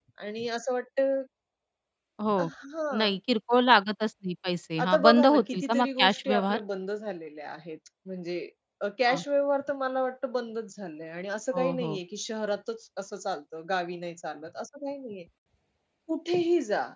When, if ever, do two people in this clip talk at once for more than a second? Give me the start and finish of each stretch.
4.8-6.6

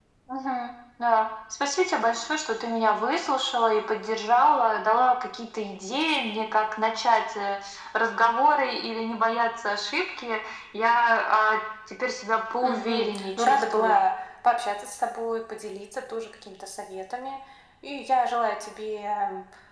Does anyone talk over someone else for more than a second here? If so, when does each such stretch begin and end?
12.6-14.1

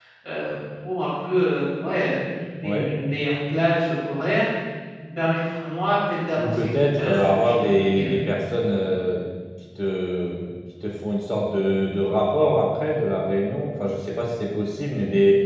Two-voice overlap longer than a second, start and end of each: 6.4-8.2

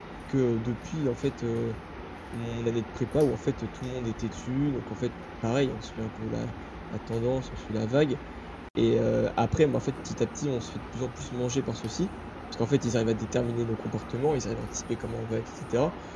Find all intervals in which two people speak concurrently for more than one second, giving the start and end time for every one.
none

